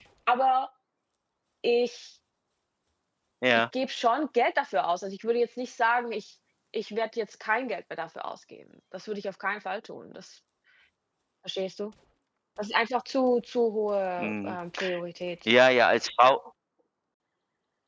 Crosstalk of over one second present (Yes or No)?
No